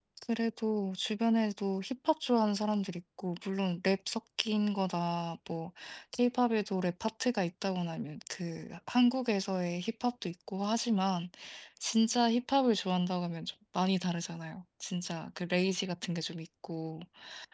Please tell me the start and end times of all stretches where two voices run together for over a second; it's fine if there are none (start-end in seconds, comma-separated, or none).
none